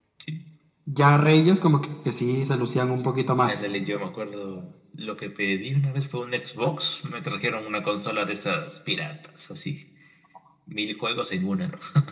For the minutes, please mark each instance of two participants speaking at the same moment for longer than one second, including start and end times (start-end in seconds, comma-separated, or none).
none